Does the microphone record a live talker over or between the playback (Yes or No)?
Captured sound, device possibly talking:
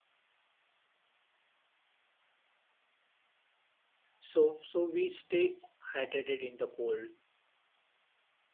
Yes